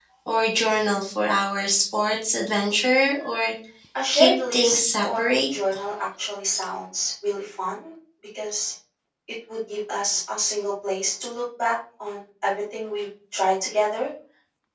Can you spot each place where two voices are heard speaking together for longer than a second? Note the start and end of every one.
4.1-5.4

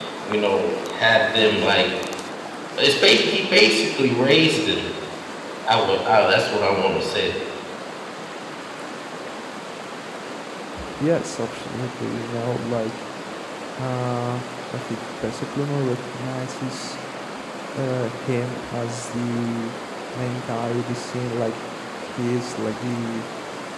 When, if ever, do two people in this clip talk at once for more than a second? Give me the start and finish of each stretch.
none

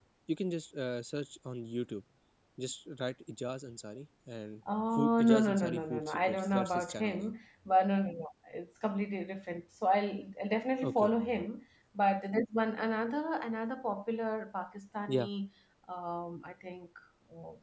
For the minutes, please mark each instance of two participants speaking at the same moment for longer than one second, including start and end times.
4.9-7.3

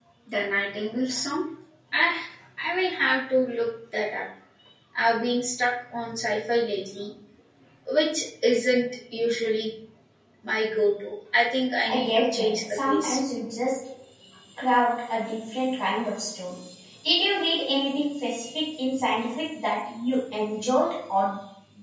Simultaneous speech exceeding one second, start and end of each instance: 11.9-13.2

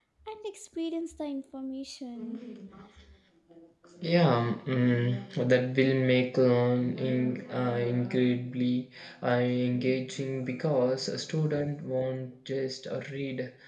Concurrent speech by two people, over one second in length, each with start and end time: none

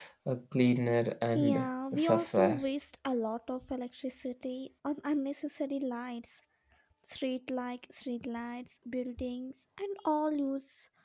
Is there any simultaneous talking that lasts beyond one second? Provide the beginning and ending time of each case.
1.4-2.6

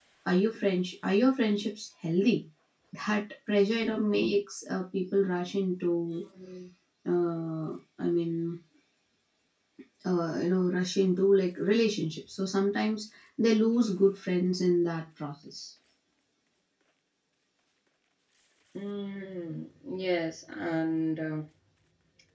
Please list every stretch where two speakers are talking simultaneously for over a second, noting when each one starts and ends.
none

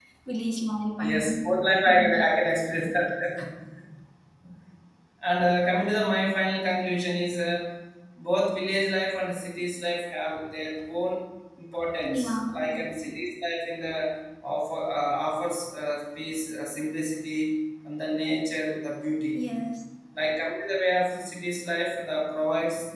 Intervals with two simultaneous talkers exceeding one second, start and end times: none

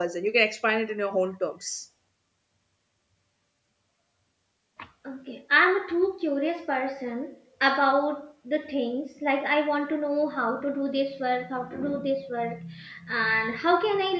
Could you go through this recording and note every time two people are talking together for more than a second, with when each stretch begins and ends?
none

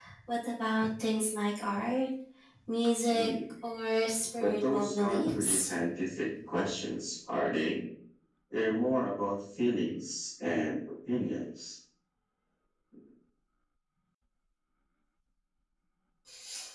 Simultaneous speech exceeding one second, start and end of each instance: 4.4-5.7

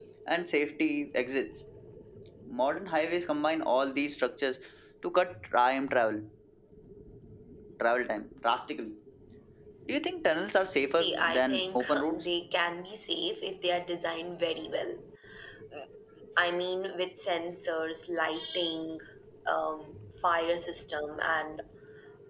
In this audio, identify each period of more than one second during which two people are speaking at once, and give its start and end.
10.9-12.3

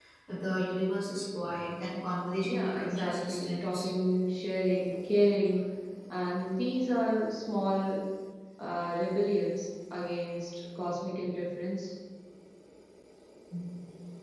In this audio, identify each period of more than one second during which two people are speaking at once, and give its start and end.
2.4-3.9

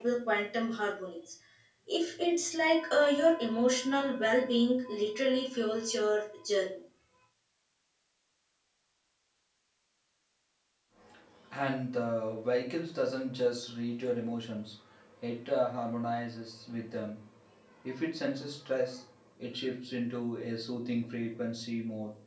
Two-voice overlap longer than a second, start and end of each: none

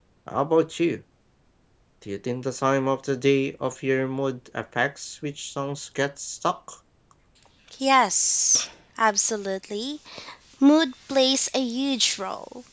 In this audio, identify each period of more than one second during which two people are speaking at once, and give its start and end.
none

